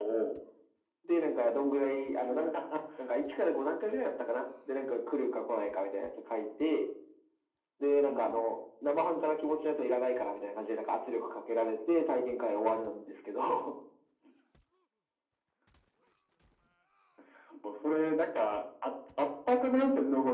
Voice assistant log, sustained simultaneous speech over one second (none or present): none